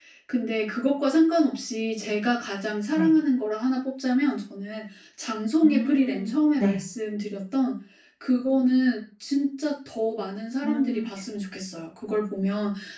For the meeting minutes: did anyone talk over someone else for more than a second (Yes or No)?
Yes